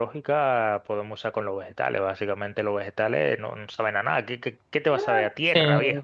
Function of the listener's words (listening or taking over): taking over